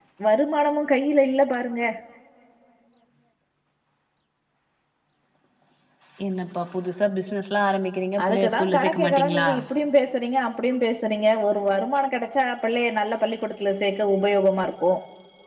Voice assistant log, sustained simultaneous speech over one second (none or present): present